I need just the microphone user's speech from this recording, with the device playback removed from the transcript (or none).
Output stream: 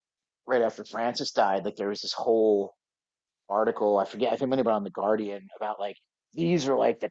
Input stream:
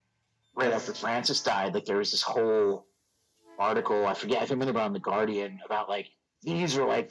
That's